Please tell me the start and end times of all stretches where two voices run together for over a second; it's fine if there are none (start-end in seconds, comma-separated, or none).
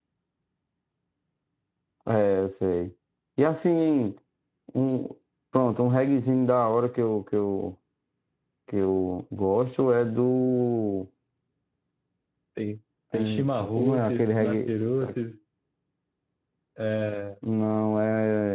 13.1-14.7